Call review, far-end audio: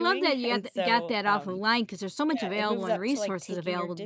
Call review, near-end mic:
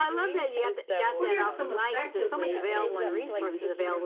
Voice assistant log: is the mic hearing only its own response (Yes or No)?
No